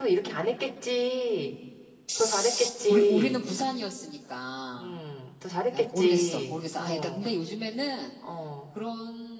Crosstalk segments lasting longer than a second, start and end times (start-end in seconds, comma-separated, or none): 5.7-7.2